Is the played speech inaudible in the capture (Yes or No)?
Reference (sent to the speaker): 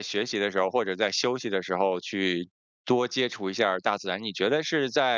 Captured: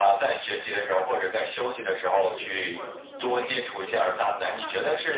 No